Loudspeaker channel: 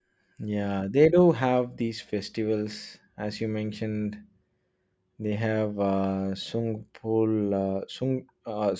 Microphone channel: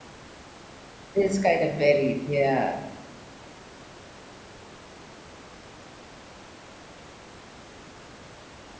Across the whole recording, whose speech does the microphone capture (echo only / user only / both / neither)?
user only